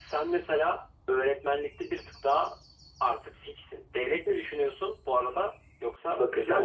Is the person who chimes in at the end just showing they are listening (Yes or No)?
No